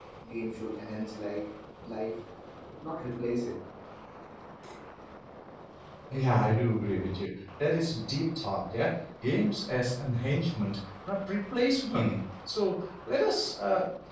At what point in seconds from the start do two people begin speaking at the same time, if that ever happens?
none

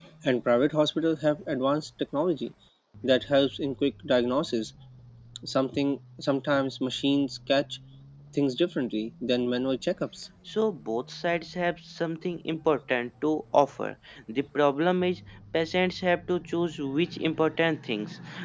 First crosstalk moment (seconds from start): none

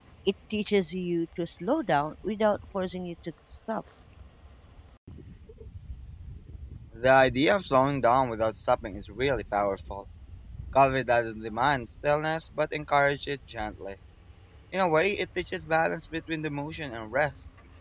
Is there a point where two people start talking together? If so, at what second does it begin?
none

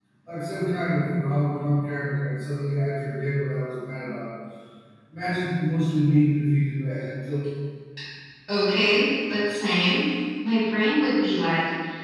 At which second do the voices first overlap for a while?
none

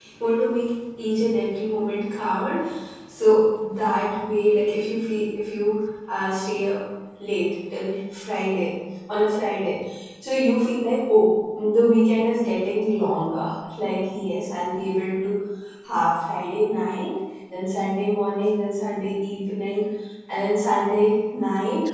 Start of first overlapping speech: none

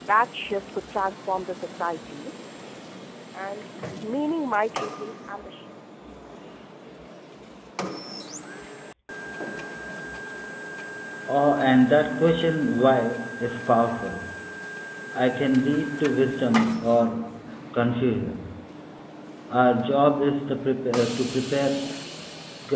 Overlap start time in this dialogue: none

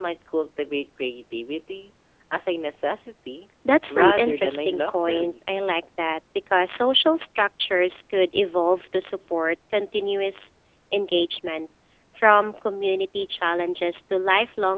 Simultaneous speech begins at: 3.9 s

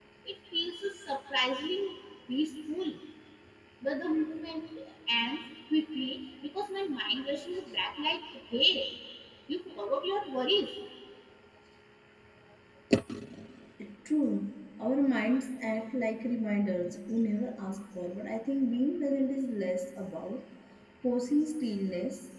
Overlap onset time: none

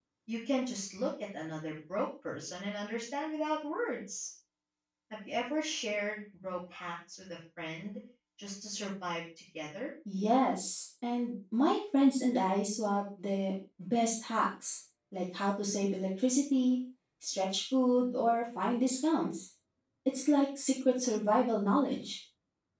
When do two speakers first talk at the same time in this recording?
none

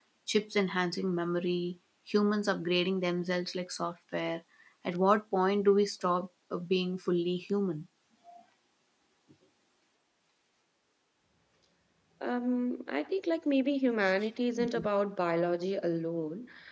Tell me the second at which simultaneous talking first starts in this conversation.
none

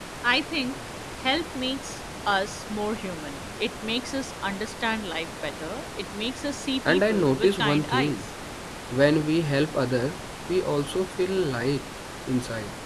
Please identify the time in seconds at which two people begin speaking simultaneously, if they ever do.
6.8 s

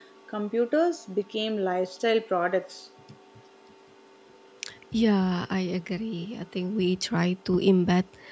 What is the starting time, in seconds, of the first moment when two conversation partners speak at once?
none

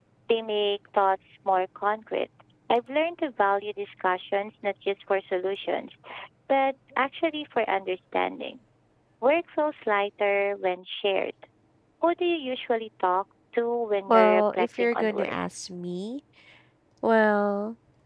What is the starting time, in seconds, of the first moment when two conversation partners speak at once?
14.1 s

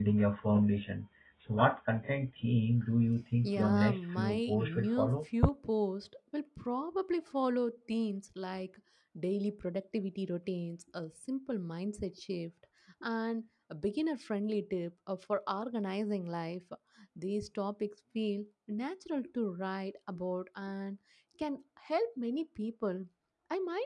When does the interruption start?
3.4 s

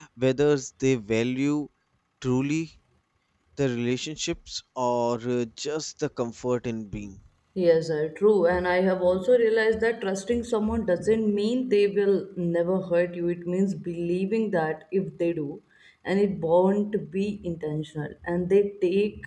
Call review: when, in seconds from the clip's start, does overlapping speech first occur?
none

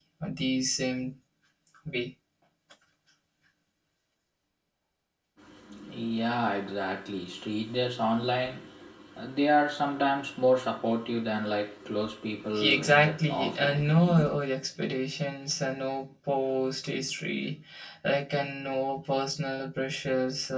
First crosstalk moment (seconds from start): 12.6 s

